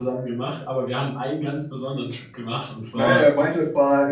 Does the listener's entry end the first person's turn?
Yes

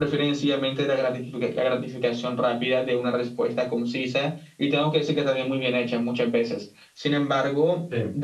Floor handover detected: No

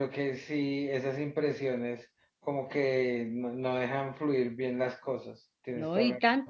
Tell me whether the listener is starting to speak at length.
Yes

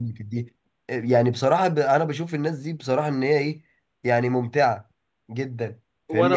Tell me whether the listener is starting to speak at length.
Yes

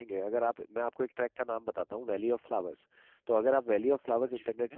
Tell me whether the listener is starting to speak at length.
No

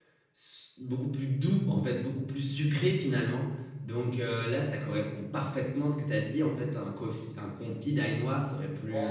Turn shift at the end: Yes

